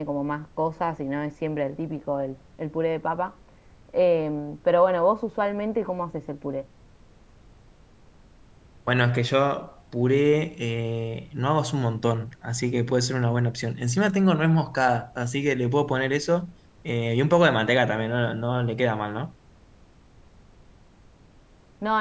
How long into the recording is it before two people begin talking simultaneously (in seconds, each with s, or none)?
none